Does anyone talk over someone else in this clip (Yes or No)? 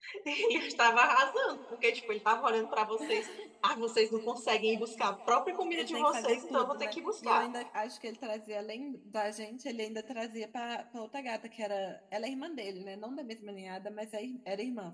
Yes